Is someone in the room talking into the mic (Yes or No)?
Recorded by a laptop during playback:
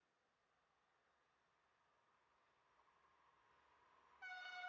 No